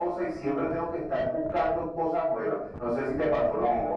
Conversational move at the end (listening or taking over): taking over